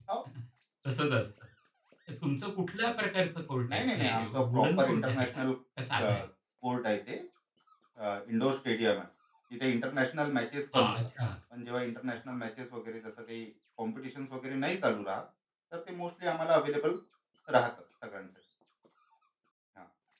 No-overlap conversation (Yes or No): No